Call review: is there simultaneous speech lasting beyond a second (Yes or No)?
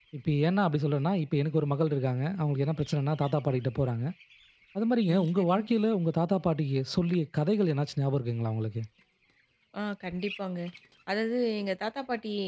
No